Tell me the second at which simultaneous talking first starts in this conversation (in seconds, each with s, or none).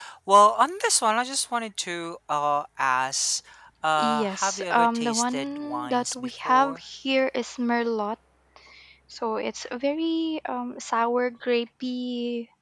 4.0 s